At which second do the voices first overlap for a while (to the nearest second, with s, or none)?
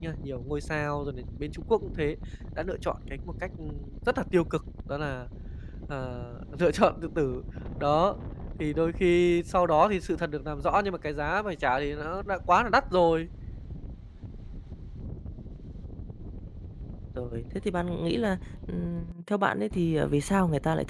none